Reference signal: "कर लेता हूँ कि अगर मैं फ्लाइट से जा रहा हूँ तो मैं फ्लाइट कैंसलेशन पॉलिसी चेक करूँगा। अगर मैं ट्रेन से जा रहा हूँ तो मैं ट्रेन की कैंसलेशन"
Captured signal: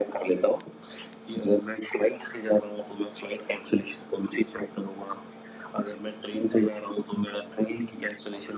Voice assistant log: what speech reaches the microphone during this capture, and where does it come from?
echo only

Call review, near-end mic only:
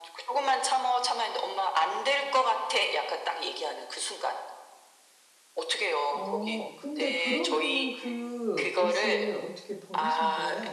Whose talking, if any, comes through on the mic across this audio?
both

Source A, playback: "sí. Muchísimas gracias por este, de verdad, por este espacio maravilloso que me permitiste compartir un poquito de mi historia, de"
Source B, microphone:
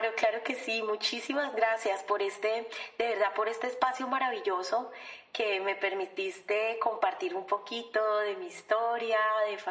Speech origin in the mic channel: echo only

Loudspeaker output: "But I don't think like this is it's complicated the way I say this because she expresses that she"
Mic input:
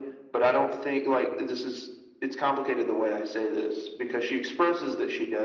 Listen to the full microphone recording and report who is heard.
echo only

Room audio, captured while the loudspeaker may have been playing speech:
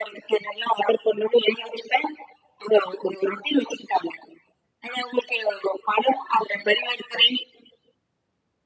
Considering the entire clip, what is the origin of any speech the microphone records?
echo only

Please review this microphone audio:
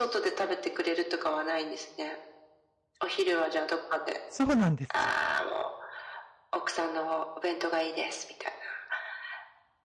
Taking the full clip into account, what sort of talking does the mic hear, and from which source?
both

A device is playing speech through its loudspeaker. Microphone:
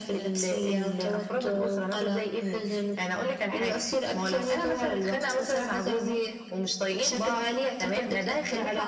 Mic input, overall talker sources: echo only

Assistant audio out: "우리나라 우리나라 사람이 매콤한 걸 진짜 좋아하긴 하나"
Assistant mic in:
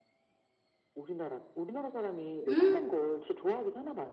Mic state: both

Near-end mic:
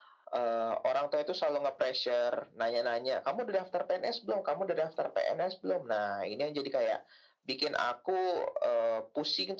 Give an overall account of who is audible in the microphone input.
echo only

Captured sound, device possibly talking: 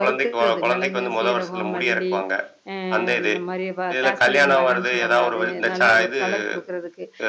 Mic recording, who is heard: both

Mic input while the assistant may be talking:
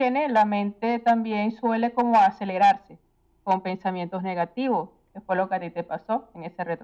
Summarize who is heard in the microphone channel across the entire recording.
echo only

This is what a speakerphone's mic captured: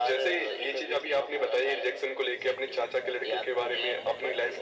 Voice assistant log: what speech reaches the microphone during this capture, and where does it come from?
echo only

